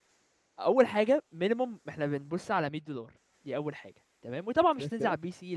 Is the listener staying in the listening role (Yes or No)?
Yes